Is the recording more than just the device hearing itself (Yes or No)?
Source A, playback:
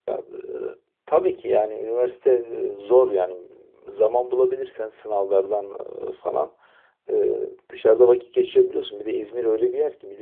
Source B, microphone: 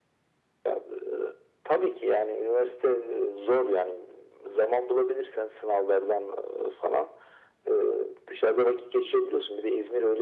No